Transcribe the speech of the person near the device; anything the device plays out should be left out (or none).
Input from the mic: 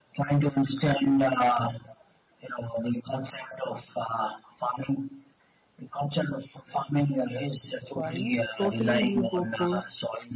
So, I totally will go for